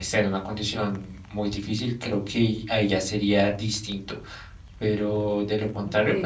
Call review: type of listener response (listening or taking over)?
listening